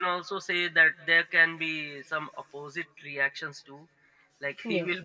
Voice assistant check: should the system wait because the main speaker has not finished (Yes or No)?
Yes